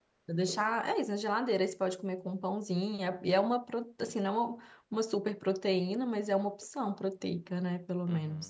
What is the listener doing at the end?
taking over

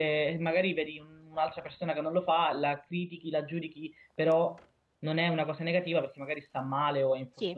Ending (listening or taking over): taking over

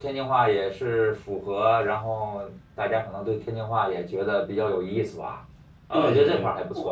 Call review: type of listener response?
taking over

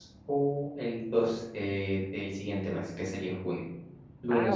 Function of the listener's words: listening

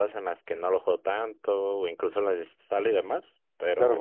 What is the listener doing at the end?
taking over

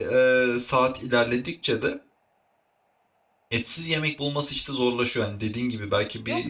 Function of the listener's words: taking over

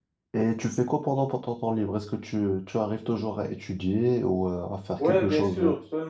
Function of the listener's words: taking over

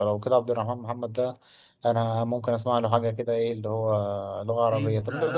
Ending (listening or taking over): taking over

